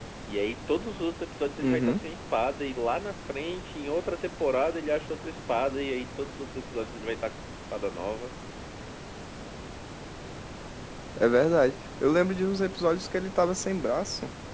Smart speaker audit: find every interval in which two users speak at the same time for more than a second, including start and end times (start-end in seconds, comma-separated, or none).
none